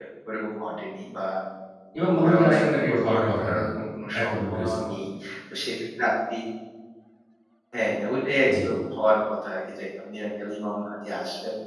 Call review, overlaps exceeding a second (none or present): present